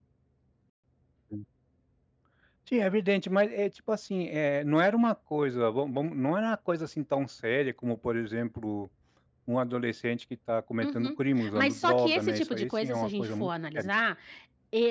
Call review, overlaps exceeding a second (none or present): present